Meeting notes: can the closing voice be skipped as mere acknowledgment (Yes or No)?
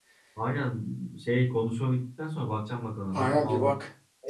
No